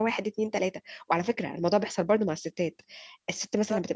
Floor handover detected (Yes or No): No